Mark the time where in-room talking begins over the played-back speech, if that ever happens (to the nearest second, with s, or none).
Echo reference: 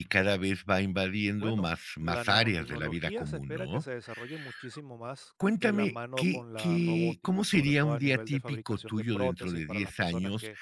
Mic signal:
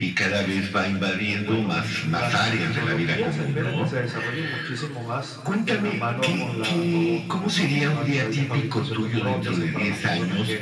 none